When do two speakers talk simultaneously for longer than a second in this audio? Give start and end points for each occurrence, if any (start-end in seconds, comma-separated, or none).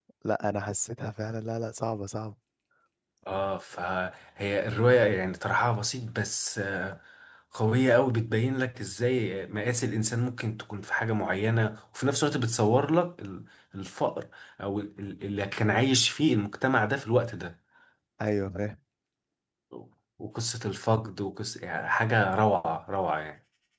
none